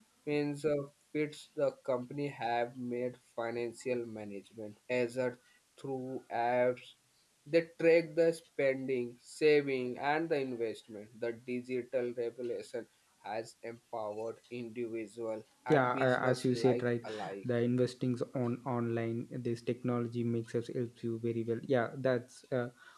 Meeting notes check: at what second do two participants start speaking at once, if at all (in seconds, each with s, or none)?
15.7 s